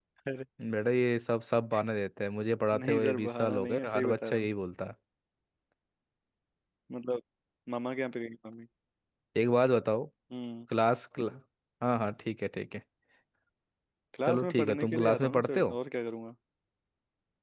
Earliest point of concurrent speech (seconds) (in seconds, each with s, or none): 2.7 s